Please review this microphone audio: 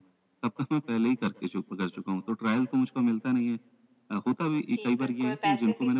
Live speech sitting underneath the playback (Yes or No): Yes